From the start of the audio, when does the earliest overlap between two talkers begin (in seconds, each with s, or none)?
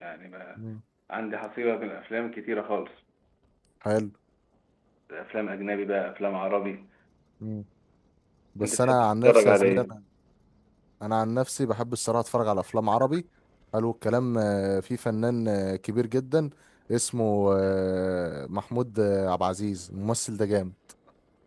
8.6 s